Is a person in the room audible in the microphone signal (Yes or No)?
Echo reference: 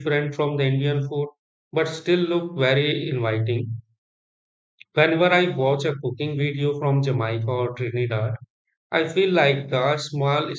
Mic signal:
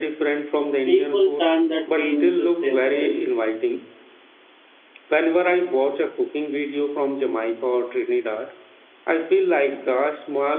Yes